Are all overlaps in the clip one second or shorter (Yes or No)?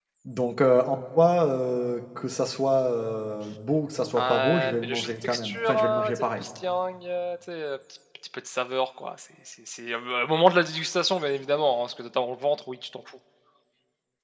No